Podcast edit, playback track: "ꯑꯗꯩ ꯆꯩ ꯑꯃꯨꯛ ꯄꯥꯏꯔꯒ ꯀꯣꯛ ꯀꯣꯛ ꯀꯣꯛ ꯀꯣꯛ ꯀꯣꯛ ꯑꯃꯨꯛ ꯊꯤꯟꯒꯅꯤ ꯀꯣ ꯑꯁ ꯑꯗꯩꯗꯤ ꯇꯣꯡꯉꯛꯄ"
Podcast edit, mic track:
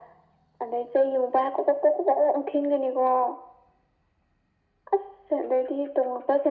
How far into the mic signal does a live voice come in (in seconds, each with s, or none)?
none